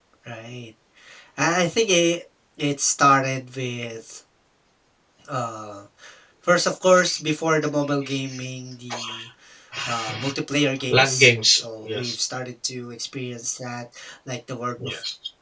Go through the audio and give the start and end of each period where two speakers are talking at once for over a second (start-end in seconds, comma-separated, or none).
10.9-12.2